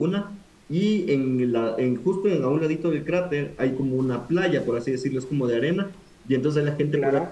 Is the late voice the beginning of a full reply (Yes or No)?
No